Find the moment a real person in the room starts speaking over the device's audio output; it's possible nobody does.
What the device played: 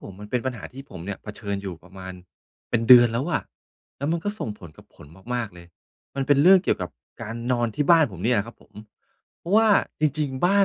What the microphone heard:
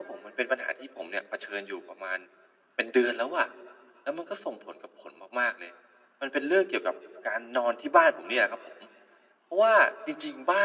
none

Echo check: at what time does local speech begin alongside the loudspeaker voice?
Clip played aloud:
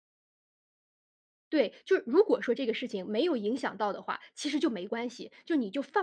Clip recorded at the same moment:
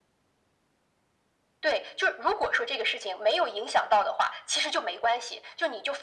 none

